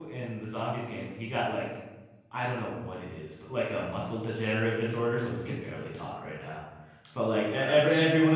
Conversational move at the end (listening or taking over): listening